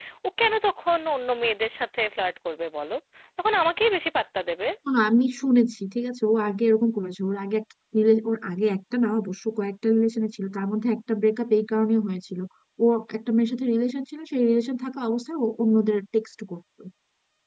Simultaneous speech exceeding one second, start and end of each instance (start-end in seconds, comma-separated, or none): none